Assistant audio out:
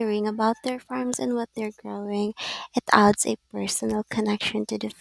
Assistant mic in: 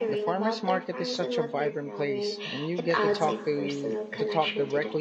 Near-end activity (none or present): present